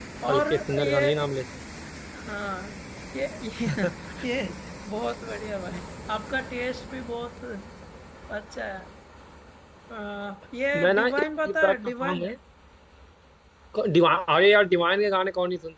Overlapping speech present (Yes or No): Yes